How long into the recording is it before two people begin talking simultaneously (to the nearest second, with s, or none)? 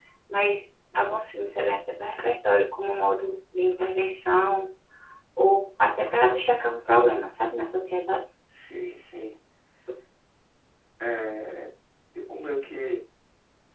none